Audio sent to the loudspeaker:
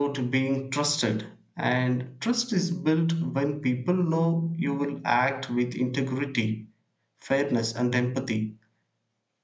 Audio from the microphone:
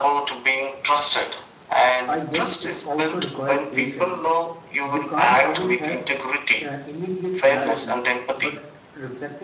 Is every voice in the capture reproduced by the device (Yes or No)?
No